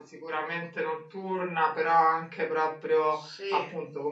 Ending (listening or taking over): listening